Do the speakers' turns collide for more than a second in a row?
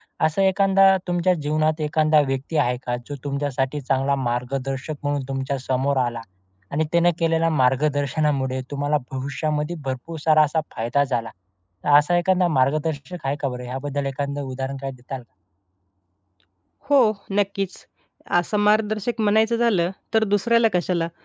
No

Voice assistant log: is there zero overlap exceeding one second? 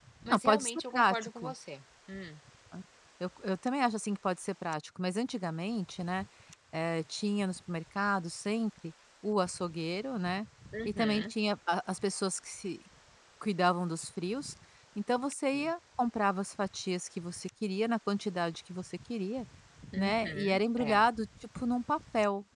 No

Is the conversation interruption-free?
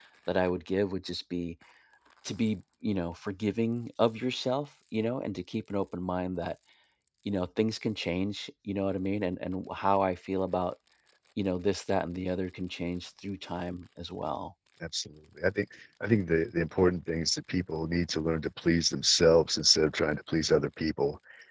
Yes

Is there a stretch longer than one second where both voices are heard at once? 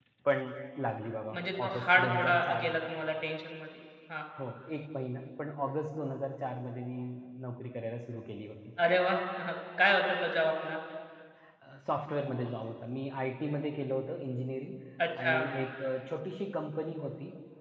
Yes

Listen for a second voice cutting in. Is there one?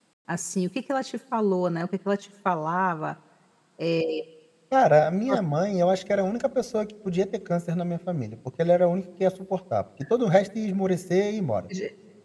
No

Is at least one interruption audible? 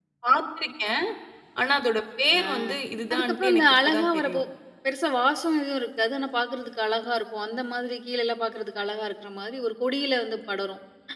Yes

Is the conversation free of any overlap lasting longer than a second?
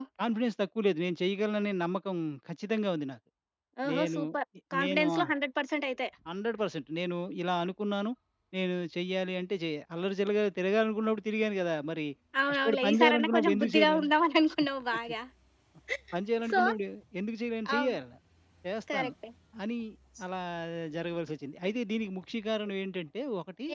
No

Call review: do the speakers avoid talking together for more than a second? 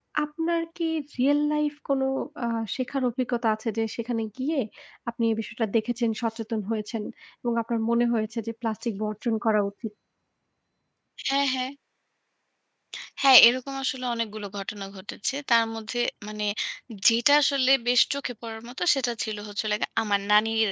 Yes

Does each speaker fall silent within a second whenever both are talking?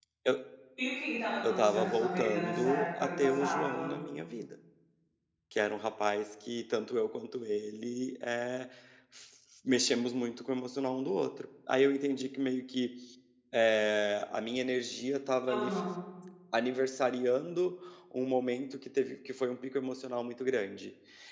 No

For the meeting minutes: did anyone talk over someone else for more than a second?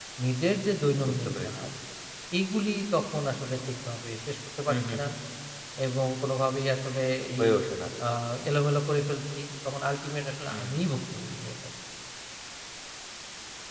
No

